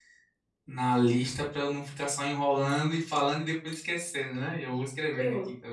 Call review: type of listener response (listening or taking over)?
taking over